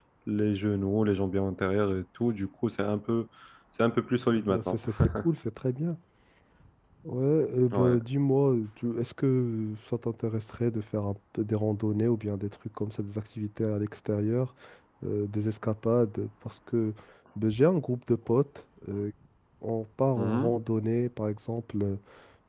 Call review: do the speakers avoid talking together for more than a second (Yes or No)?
Yes